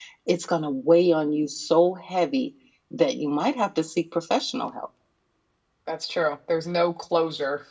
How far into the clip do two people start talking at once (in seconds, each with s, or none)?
none